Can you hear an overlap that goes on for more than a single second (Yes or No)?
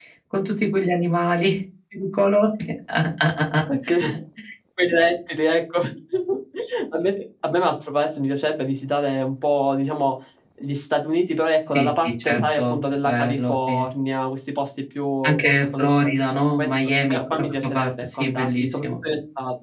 Yes